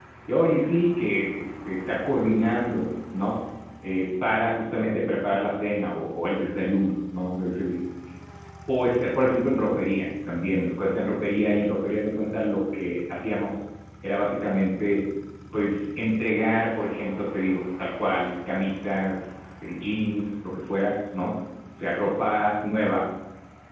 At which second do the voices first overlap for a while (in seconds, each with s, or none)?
none